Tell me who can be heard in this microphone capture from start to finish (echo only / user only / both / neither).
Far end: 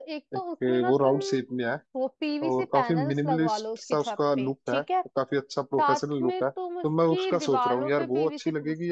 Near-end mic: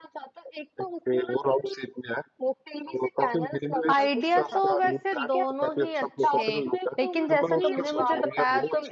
both